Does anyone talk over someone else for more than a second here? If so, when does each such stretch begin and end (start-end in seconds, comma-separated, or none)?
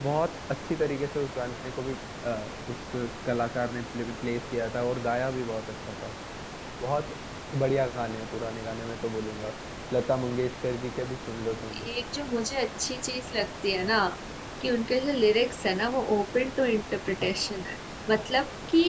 none